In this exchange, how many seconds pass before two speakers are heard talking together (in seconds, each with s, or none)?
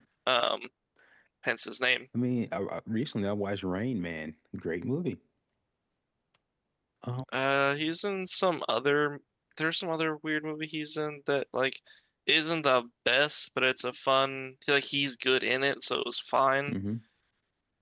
none